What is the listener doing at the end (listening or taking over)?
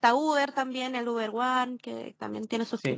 taking over